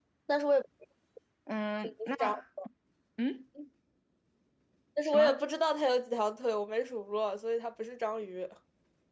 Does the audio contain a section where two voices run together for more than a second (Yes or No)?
No